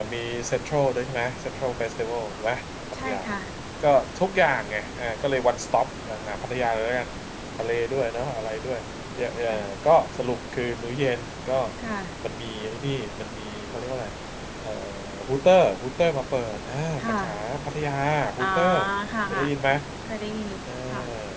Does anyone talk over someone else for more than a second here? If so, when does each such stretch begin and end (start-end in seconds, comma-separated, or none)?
none